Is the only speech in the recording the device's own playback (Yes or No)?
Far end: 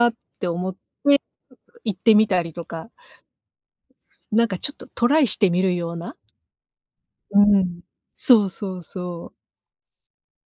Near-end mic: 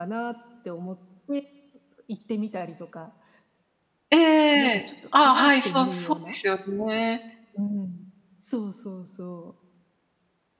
No